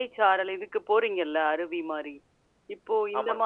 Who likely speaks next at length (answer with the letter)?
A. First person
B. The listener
A